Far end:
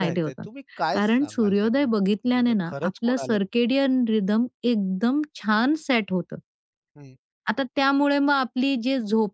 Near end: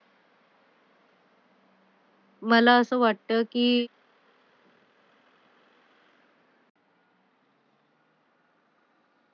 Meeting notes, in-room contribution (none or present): present